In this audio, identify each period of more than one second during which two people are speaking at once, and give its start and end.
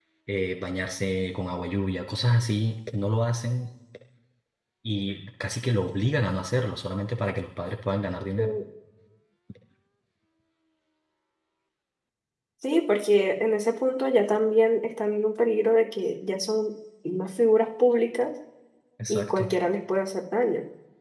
none

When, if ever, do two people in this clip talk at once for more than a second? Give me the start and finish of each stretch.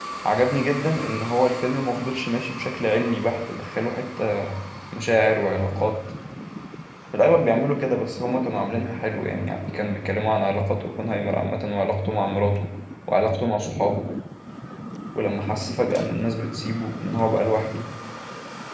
none

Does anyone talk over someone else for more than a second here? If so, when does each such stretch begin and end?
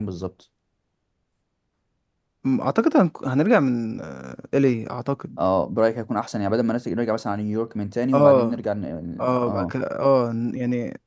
none

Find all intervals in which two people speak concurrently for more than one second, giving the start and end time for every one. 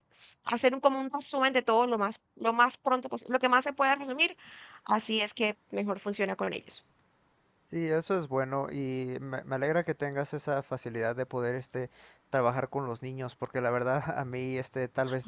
none

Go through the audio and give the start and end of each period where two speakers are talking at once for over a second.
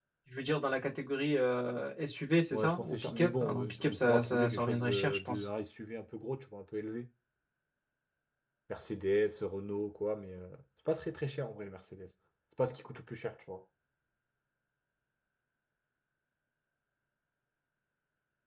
2.5-5.5

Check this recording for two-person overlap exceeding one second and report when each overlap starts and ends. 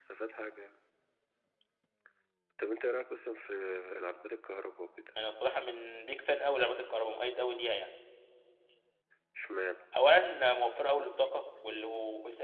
none

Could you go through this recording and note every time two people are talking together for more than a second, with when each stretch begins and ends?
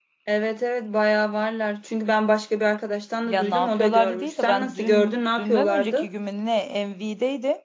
3.2-6.1

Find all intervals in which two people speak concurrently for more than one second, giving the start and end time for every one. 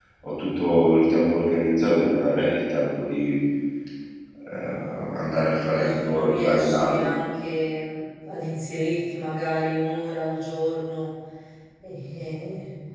5.7-7.1

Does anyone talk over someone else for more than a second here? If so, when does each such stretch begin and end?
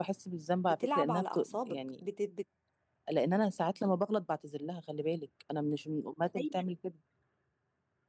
0.7-2.1

